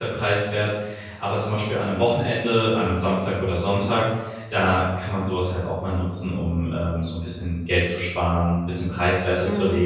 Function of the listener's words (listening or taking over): listening